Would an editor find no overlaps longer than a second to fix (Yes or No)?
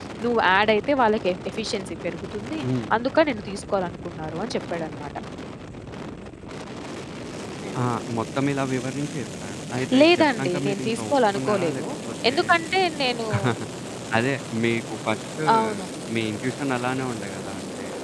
No